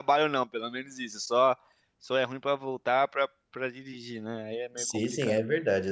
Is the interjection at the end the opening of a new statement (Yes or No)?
Yes